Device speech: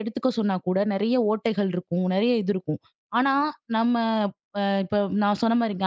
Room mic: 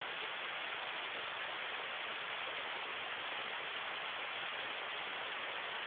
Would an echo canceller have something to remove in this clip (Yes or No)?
No